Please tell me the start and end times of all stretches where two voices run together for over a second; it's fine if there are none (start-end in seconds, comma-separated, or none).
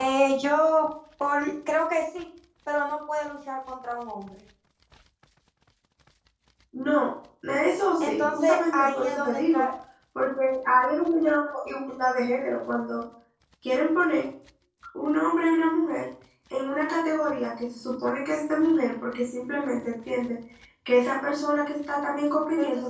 8.0-9.6